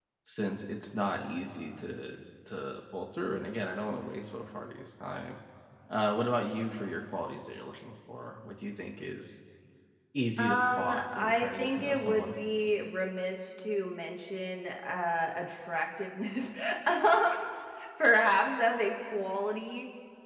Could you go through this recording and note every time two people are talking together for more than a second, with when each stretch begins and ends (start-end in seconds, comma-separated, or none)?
10.4-12.3